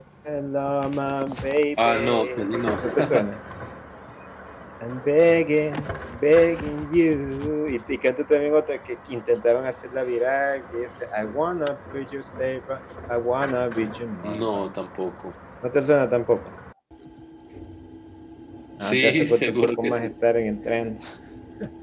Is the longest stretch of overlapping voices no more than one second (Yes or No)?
No